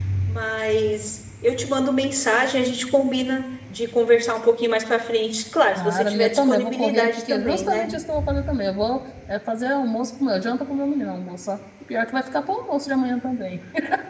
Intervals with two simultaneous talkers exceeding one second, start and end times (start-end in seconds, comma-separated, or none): 5.7-7.9